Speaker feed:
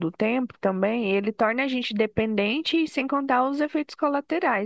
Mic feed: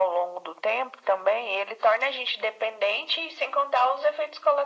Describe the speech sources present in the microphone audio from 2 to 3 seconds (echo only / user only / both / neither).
echo only